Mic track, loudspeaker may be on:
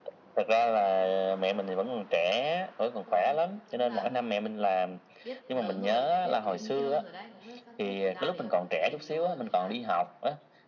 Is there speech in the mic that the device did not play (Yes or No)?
Yes